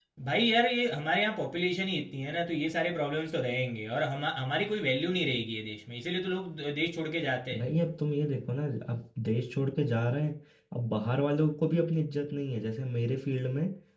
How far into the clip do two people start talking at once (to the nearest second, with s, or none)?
none